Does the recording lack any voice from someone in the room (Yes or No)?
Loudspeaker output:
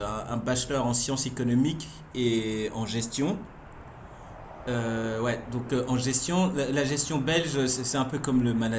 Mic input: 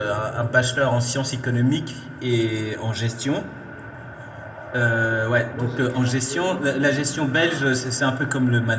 No